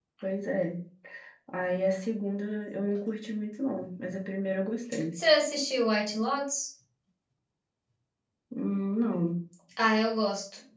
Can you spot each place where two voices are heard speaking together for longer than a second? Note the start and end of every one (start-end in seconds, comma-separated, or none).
none